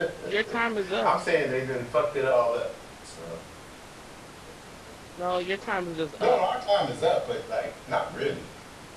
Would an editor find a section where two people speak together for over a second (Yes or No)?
No